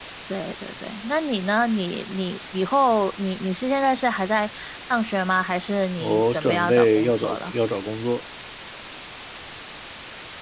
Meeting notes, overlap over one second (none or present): present